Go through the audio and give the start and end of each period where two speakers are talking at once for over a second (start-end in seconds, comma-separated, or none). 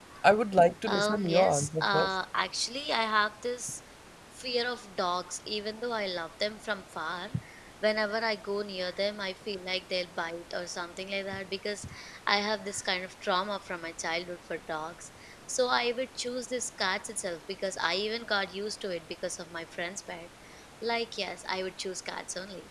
0.9-2.1